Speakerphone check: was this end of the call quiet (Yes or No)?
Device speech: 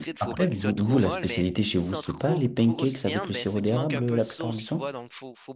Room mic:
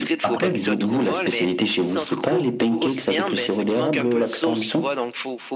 Yes